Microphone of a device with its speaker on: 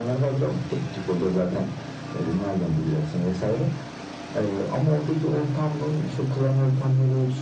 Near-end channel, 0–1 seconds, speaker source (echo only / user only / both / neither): echo only